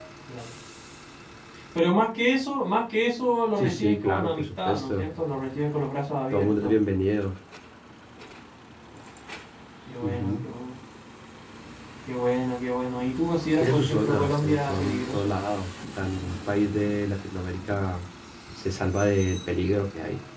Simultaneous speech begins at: 3.6 s

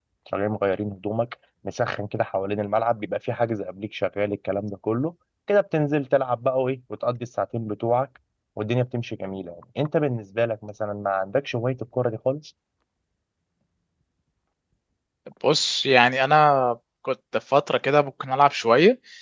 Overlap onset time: none

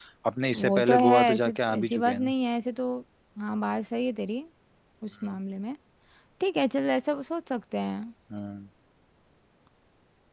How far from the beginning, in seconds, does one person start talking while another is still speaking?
0.5 s

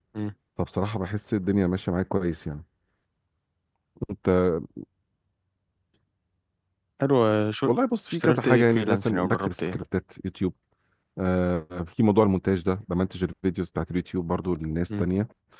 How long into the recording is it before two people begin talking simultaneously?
8.1 s

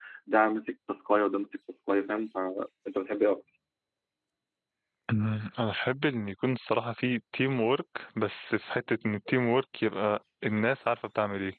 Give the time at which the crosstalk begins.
none

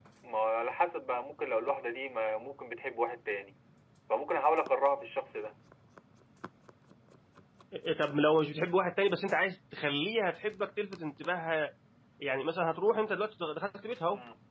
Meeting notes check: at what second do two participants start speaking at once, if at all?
none

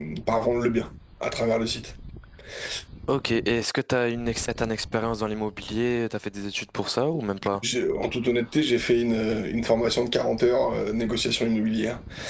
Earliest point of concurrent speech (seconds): none

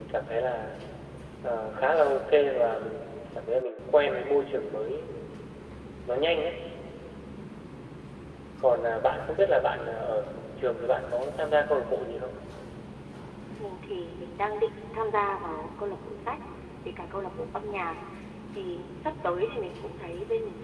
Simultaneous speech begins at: none

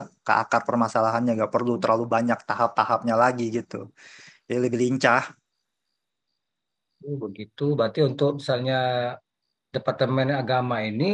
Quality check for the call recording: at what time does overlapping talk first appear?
none

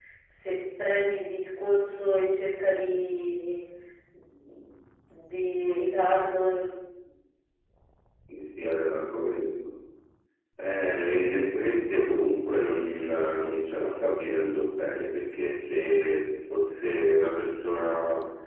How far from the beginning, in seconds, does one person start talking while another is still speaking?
none

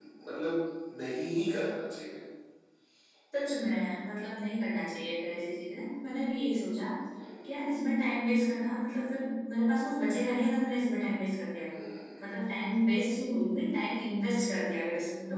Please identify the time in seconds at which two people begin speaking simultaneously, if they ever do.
none

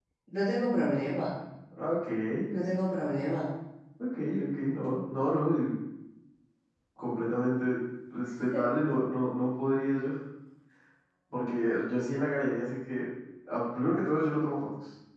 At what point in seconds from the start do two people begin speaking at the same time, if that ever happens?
none

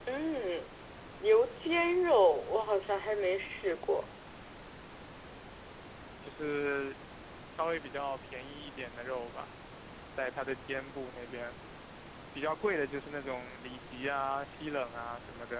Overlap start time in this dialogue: none

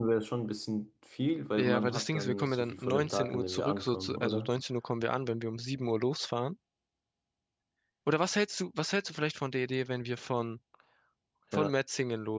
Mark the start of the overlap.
1.6 s

